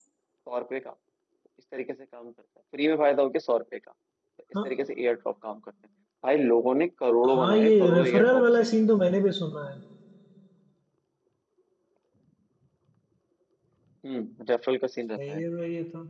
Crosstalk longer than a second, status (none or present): present